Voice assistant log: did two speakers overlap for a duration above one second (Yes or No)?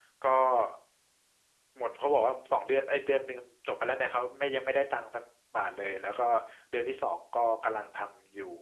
No